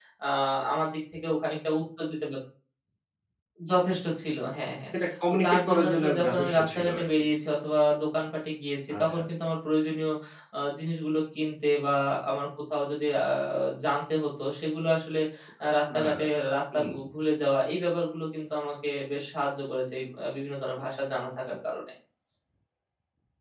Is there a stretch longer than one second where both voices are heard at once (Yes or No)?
Yes